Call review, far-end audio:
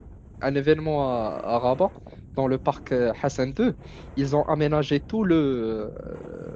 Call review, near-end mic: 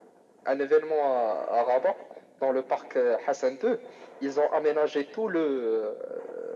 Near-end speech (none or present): none